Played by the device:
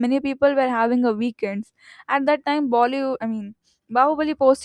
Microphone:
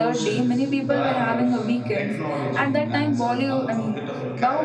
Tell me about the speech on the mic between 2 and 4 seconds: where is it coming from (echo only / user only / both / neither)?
both